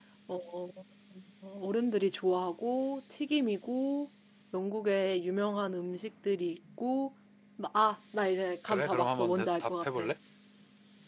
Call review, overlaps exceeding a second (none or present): present